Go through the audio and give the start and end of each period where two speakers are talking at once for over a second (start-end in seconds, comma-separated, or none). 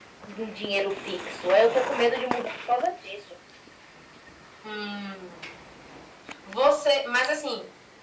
none